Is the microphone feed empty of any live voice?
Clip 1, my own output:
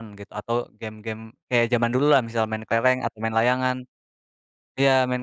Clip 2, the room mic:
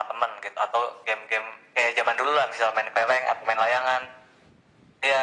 Yes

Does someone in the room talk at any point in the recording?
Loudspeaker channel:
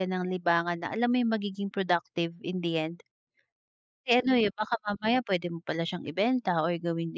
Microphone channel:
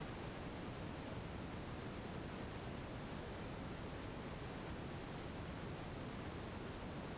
No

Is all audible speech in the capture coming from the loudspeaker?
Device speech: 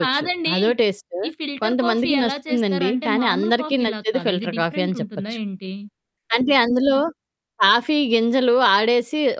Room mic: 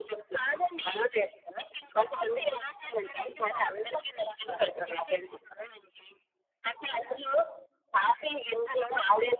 Yes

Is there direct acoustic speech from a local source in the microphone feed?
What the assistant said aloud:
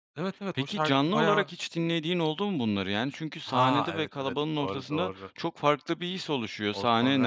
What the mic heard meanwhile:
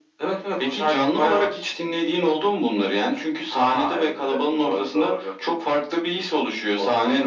No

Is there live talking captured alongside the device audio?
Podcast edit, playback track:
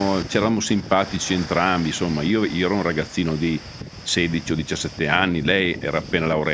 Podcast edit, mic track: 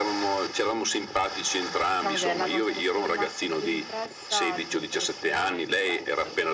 Yes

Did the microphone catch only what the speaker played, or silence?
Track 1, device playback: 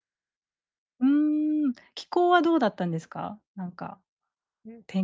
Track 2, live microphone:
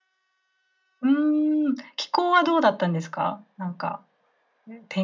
Yes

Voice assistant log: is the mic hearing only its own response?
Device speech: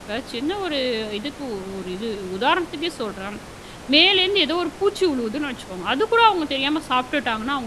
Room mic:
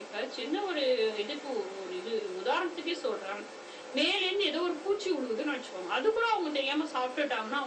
Yes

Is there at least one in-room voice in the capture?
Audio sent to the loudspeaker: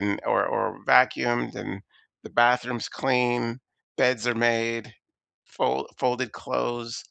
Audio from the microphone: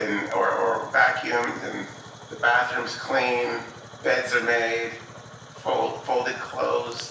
No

